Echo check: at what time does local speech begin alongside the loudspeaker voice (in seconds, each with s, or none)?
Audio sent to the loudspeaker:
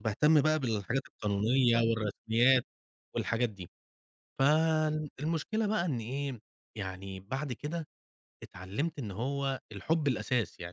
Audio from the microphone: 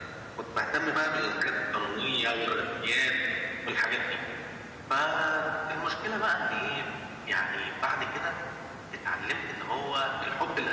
none